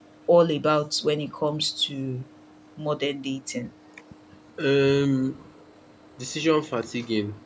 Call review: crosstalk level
none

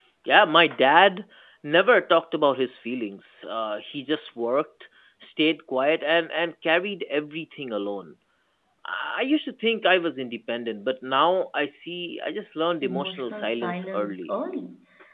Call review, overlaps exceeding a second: present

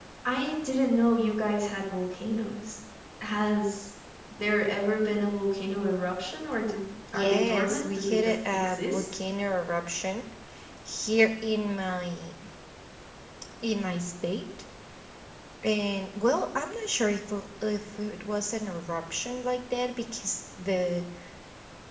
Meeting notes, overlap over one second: present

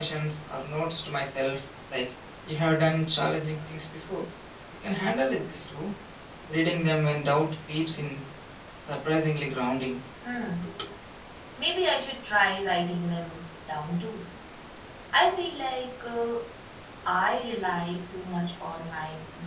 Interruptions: none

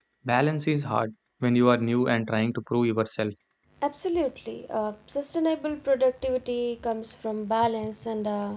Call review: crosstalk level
none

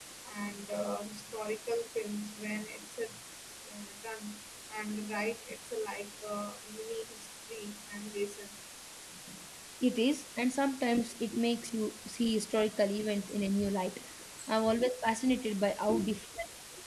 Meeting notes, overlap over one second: none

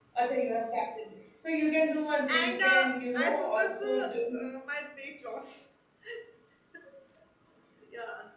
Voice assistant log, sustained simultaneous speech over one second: present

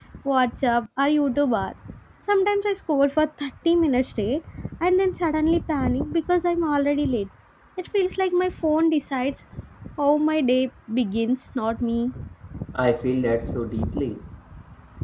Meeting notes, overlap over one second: none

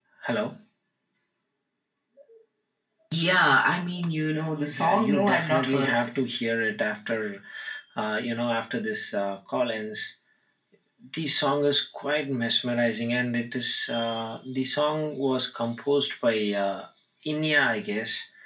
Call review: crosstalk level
present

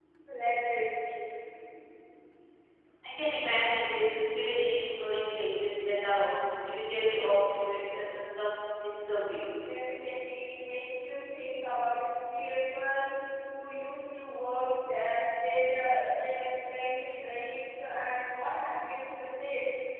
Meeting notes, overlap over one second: none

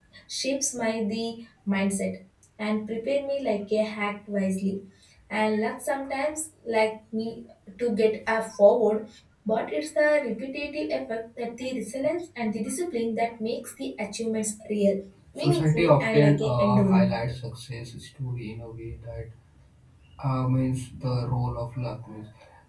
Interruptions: present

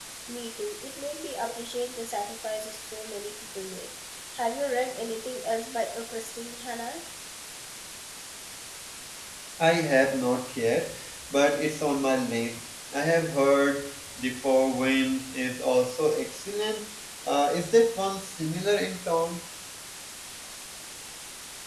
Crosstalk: none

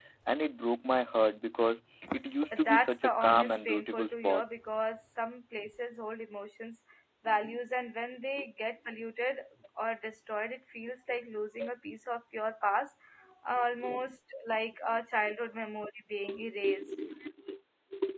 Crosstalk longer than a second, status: present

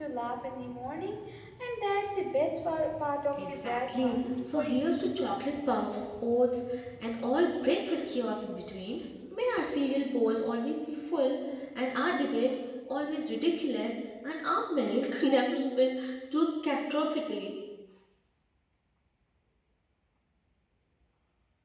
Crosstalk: present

